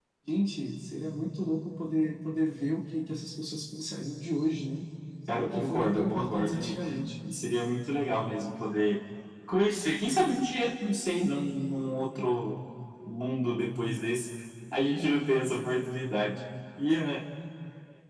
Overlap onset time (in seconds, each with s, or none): 5.3 s